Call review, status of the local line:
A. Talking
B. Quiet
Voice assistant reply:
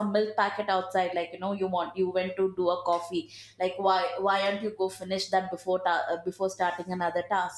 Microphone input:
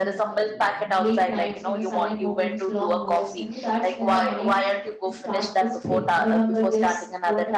A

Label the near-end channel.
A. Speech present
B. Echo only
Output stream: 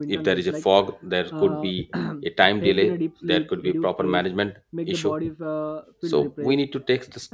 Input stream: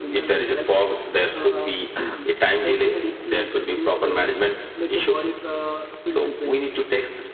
B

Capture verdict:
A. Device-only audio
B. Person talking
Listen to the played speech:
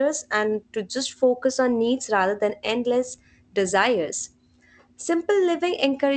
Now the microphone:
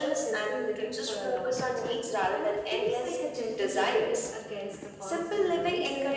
B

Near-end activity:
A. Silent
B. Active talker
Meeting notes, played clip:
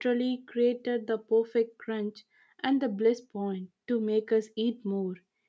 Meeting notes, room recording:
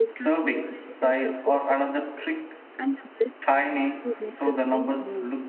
B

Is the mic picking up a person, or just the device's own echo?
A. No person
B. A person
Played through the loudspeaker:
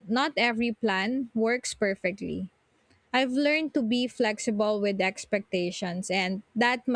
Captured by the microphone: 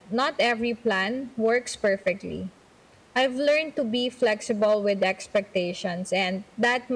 A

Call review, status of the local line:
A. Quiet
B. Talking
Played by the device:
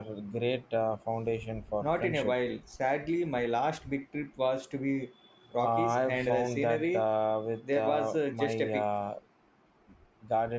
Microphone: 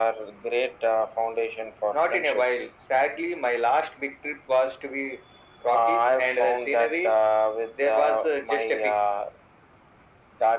A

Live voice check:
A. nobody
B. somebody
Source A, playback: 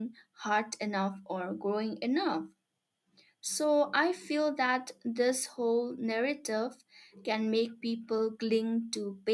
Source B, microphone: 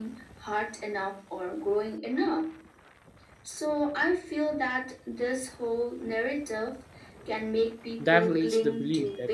B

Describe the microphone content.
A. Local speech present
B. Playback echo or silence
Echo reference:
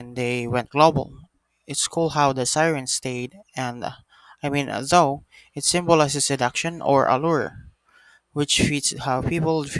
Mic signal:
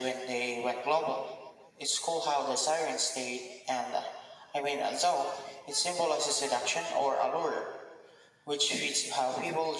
B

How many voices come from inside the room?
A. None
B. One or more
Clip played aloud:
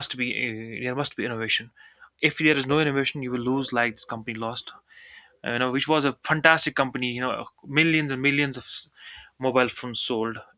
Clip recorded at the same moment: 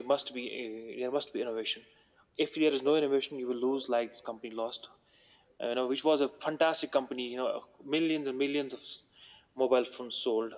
A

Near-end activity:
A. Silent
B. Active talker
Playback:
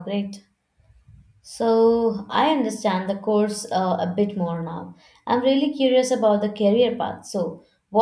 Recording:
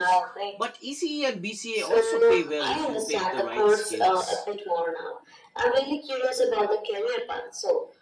B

